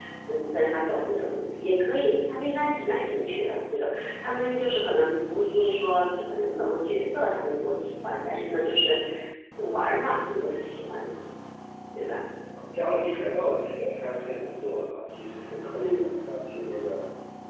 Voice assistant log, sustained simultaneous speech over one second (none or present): none